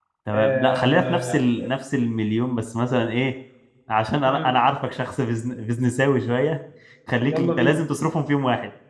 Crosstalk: present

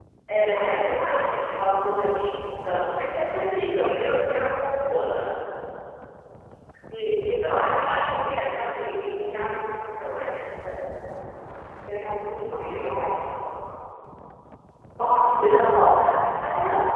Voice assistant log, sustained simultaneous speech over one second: present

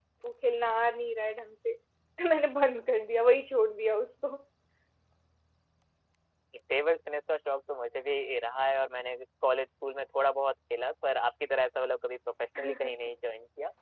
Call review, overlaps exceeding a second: none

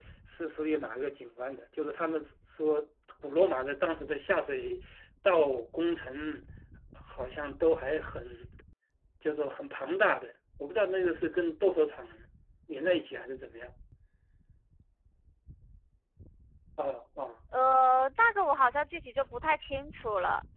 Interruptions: none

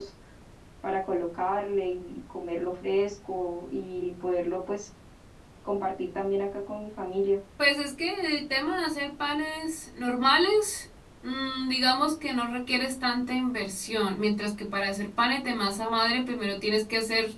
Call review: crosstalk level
none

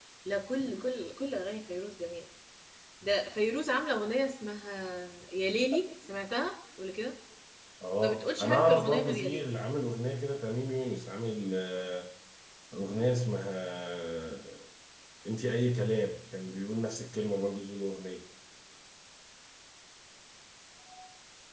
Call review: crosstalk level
present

